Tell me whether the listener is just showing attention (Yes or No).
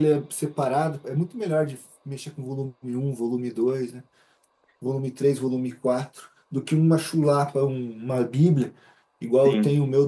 Yes